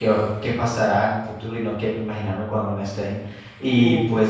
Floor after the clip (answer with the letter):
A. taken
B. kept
B